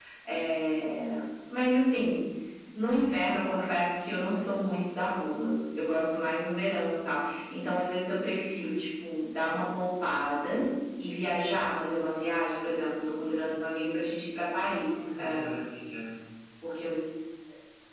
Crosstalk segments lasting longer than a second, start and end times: none

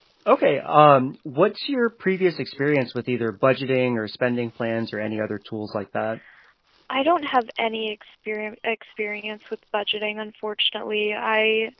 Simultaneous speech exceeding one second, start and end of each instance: none

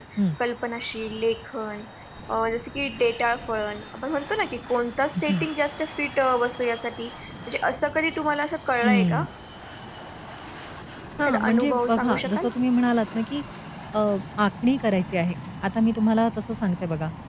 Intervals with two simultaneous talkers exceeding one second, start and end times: 11.2-12.5

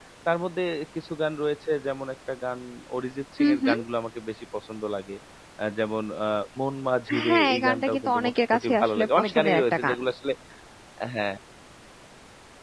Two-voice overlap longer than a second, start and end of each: 7.3-10.0

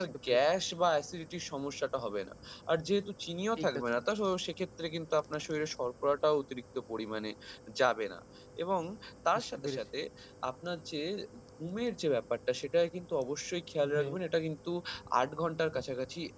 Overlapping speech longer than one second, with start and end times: none

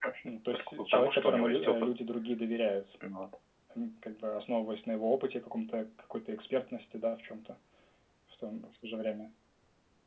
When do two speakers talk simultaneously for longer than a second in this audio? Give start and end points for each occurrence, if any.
0.5-1.7

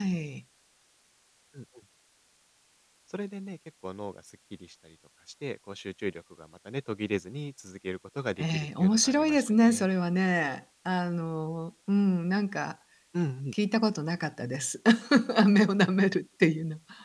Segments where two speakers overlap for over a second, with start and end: 8.4-9.9

